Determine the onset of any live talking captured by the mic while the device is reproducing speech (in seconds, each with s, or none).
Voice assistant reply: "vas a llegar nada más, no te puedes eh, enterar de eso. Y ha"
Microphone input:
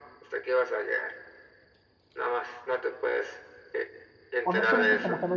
4.4 s